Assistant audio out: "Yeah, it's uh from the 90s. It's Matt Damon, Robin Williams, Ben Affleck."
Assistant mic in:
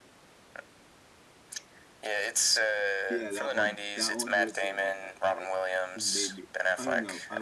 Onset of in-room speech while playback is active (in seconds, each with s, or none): 3.1 s